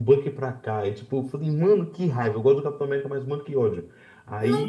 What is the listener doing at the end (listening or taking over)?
taking over